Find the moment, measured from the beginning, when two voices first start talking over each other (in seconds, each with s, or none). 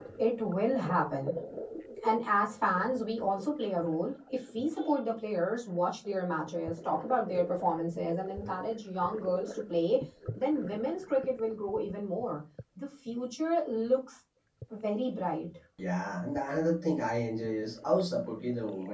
none